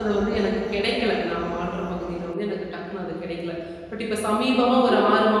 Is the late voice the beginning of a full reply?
No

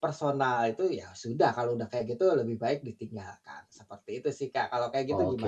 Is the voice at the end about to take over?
Yes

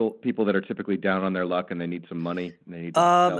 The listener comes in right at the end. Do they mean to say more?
Yes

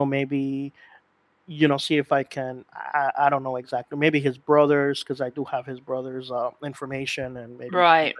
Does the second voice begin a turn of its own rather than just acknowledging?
Yes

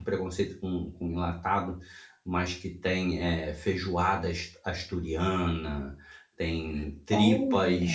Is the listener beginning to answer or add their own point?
No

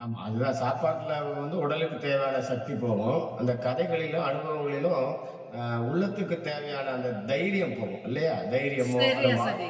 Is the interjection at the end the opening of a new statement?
No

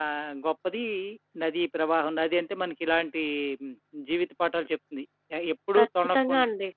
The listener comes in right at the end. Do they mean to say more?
Yes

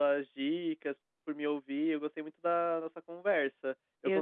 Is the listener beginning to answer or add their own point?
No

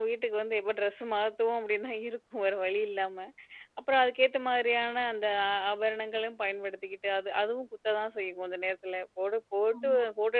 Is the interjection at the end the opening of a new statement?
No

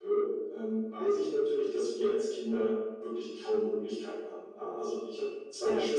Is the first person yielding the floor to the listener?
No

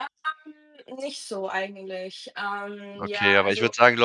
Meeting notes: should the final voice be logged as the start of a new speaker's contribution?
Yes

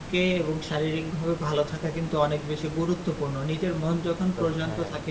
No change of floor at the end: Yes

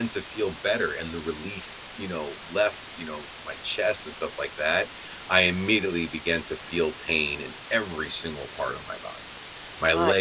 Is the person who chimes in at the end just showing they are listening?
Yes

